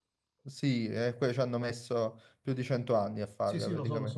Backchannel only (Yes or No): No